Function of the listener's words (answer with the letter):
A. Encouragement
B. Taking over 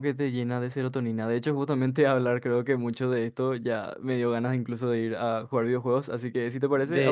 B